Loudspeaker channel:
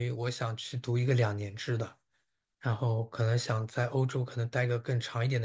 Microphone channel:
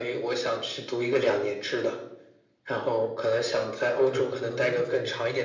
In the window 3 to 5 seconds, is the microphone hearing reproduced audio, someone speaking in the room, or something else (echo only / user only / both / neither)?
both